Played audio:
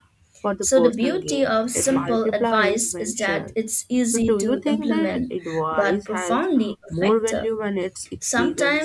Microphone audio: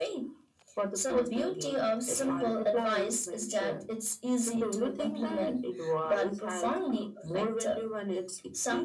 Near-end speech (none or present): none